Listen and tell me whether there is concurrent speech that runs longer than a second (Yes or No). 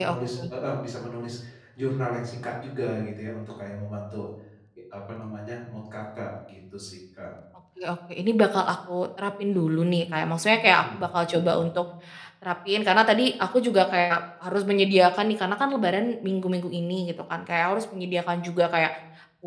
No